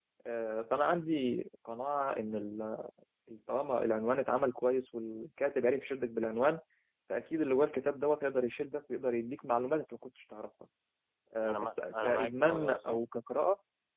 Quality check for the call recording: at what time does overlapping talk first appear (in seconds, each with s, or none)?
11.4 s